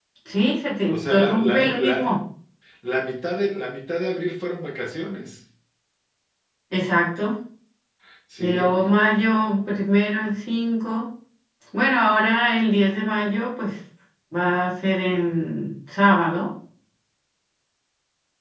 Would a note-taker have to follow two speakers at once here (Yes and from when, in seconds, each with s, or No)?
Yes, from 0.9 s